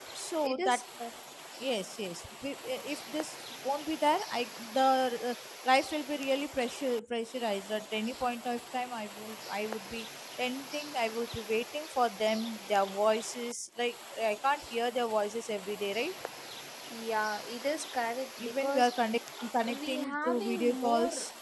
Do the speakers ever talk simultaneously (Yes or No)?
Yes